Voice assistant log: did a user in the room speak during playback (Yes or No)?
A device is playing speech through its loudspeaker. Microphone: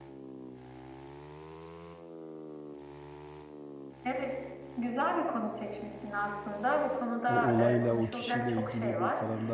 Yes